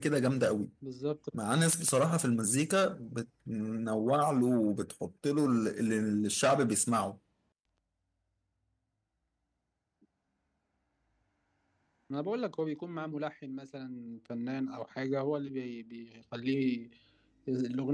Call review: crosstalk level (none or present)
none